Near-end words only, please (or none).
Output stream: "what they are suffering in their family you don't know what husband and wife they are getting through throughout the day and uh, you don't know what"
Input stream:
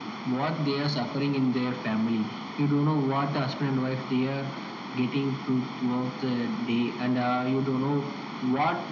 none